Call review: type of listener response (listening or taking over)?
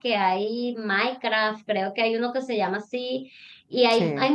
listening